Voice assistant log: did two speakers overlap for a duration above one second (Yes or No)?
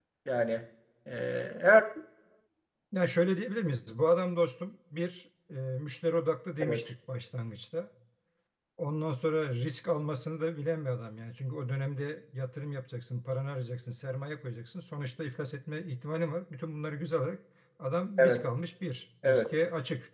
No